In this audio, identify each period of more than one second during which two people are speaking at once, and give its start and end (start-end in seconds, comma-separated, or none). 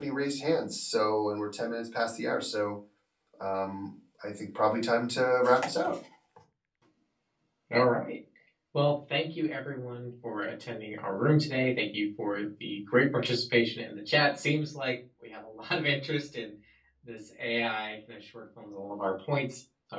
none